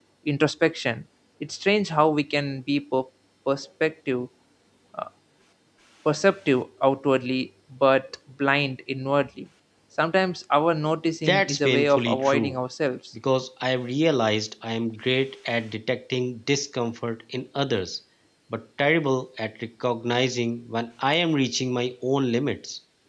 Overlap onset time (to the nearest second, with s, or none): 11 s